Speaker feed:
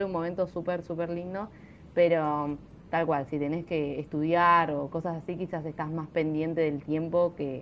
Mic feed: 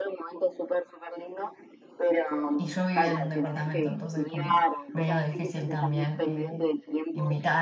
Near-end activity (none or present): present